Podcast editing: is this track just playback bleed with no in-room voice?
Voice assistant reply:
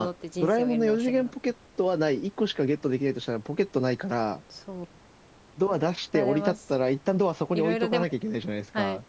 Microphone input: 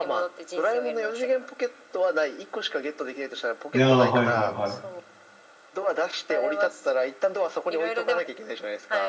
No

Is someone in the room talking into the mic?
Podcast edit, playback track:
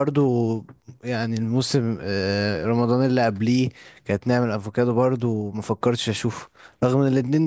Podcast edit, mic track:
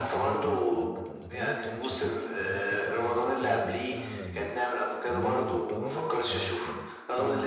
Yes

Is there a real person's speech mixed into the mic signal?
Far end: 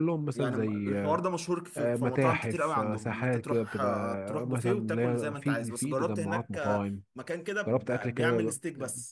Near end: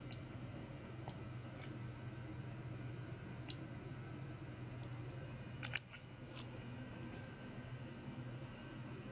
No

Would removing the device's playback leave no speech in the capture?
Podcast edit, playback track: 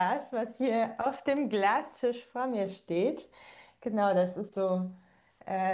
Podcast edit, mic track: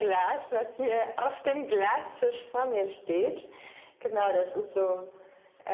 Yes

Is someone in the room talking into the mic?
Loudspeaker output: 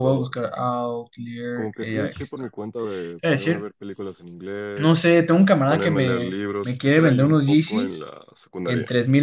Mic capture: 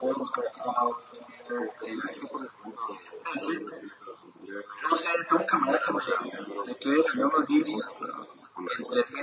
No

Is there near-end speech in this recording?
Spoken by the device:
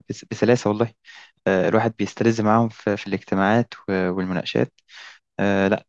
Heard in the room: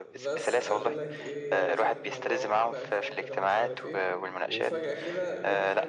Yes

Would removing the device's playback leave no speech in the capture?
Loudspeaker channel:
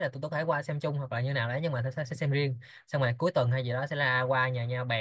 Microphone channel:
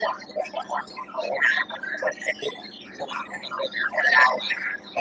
Yes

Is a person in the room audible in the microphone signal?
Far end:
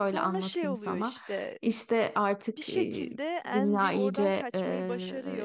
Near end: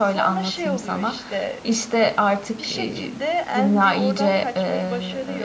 No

